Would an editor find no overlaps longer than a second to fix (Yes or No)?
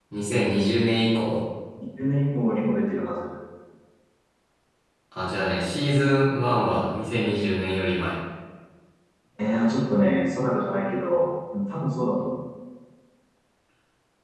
Yes